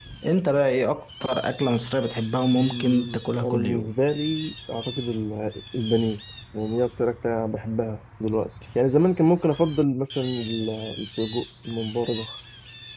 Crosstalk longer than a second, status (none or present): present